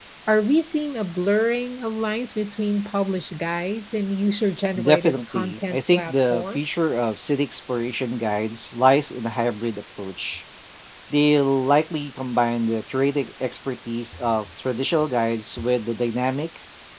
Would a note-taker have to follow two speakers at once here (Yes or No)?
Yes